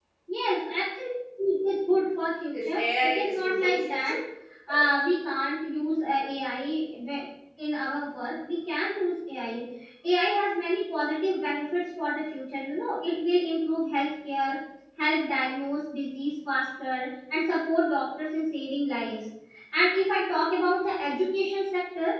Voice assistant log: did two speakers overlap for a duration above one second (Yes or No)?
Yes